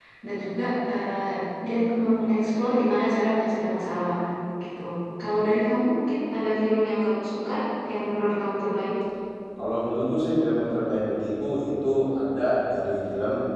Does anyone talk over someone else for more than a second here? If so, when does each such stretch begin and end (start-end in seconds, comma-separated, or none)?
none